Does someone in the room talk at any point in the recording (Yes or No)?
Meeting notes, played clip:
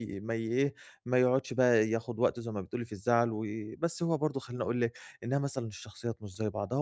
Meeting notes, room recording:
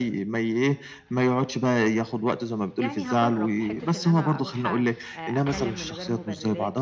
Yes